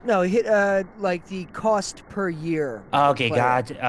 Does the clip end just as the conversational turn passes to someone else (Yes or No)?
Yes